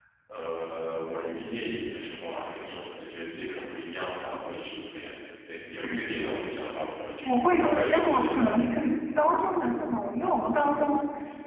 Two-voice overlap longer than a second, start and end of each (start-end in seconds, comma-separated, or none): 7.2-8.6